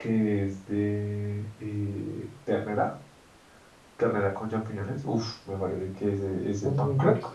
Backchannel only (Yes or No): Yes